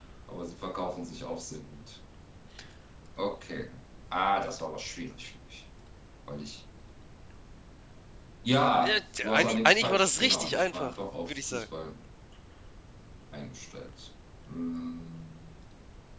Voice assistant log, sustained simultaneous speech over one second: present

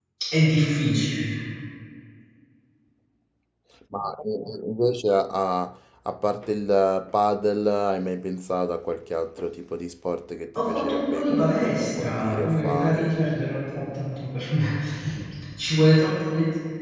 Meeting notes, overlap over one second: present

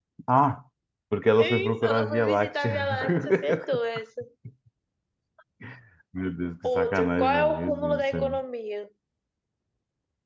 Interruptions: present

